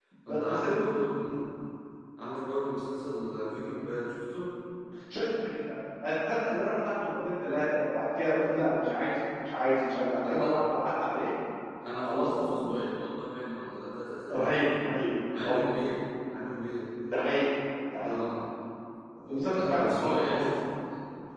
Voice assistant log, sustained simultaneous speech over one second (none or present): present